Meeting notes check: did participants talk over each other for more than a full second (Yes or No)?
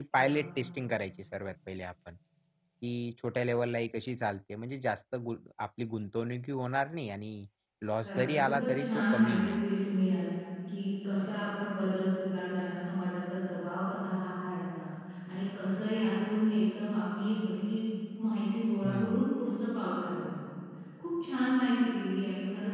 Yes